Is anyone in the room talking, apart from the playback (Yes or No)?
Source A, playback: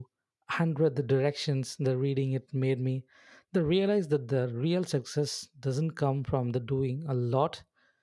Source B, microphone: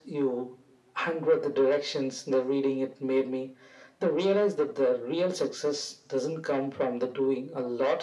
No